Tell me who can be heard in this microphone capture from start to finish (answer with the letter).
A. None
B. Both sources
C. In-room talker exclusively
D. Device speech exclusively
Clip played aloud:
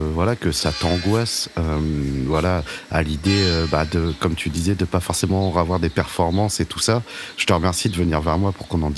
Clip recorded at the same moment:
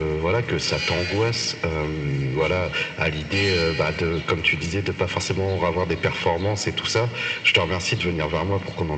D